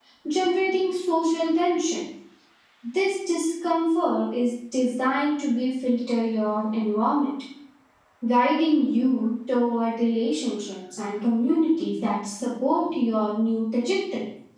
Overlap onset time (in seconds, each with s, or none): none